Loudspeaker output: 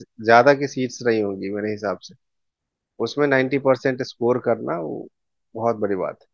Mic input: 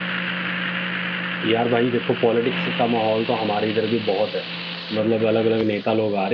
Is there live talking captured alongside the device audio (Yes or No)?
Yes